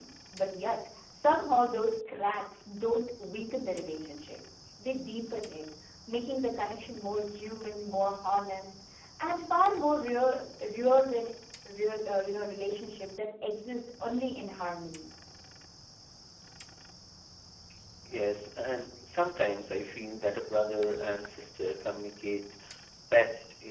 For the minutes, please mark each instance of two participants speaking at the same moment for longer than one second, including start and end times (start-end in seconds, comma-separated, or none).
none